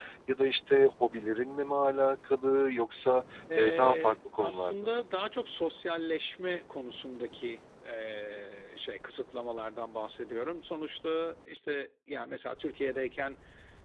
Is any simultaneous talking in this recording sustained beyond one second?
Yes, from 3.5 s

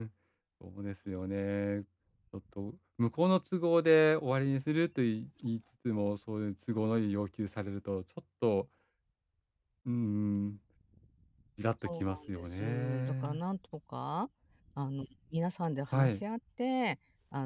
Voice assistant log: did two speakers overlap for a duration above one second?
Yes, from 12.0 s

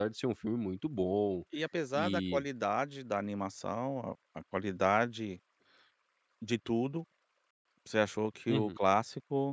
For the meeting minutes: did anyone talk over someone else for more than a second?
No

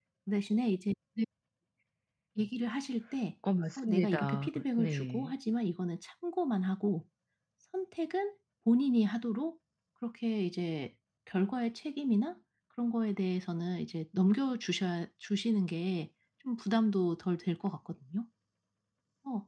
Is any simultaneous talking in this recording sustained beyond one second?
Yes, from 3.8 s

